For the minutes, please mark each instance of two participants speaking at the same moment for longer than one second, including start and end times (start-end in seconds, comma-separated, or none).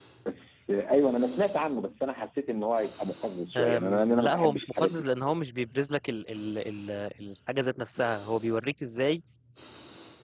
3.5-5.0